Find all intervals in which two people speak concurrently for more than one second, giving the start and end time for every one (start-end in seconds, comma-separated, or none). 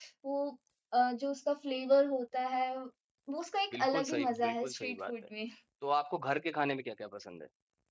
3.7-5.1